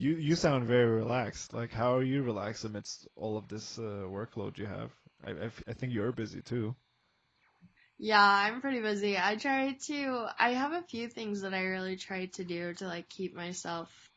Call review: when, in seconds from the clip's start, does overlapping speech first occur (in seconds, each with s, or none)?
none